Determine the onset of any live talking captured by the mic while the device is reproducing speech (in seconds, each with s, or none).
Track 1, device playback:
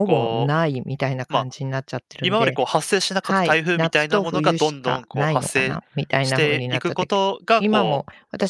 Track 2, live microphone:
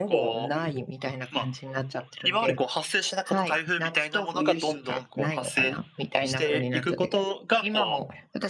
none